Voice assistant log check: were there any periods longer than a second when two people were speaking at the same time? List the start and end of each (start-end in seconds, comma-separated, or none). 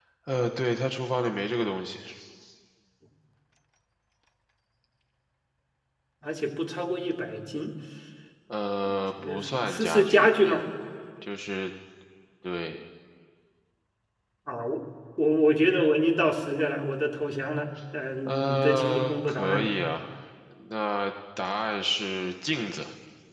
9.2-10.6, 18.2-19.7